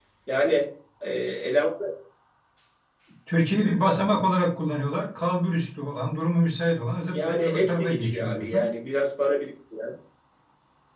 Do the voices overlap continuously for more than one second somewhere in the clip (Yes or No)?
Yes